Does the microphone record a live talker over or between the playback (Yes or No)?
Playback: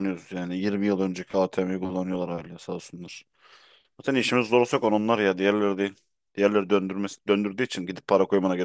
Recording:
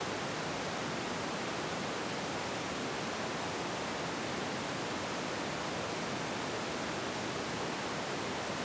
No